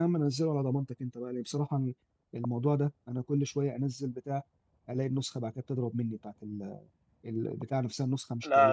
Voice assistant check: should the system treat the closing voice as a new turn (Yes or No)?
Yes